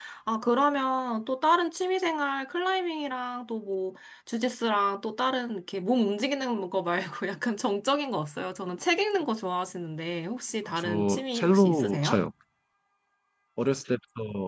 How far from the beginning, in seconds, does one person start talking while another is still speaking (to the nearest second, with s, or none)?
11 s